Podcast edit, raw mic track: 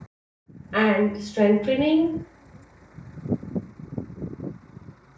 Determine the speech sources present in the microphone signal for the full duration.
user only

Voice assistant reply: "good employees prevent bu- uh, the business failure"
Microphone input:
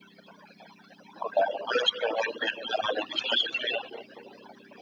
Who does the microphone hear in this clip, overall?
echo only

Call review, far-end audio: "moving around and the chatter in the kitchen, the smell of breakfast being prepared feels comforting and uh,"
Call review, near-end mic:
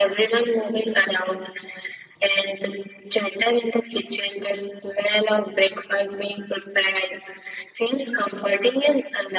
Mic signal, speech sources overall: echo only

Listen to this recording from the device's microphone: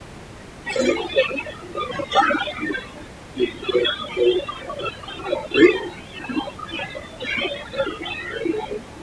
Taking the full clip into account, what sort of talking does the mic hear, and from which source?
echo only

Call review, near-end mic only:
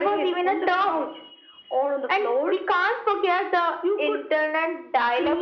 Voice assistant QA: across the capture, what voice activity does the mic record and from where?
echo only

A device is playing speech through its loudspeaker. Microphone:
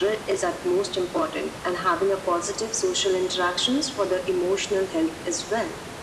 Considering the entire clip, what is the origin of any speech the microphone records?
echo only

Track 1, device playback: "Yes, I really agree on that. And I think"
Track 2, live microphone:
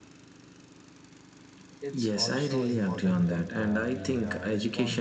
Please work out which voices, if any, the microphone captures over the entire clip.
both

